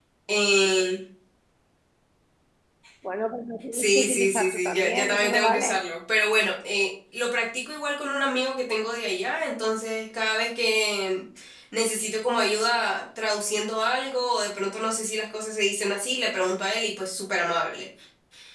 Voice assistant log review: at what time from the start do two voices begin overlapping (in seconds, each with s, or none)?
3.7 s